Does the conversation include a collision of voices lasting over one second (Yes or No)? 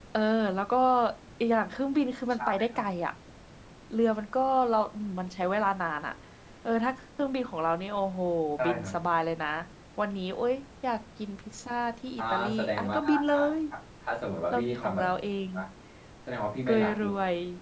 Yes